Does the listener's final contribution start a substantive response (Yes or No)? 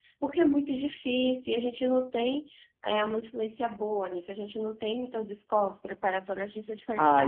Yes